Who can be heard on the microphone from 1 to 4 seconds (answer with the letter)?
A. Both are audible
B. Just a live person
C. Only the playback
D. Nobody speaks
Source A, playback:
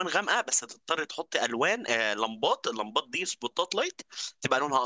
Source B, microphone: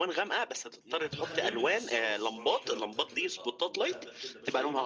A